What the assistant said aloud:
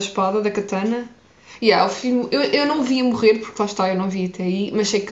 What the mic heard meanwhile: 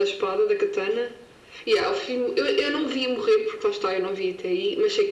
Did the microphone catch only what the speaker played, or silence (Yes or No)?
Yes